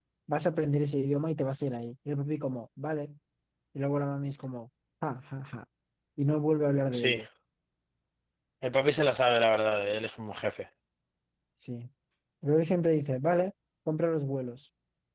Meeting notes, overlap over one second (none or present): none